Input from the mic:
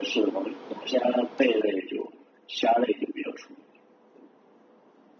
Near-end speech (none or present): none